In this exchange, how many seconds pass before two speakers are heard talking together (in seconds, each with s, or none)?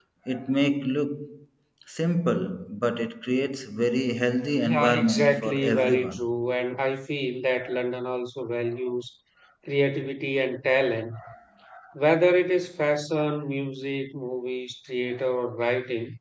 4.6 s